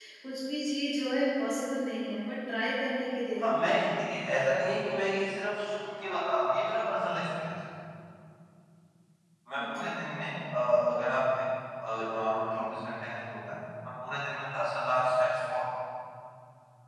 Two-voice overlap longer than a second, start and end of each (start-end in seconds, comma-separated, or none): none